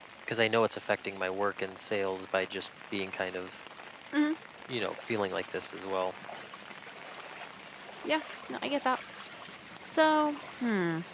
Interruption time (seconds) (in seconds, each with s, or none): none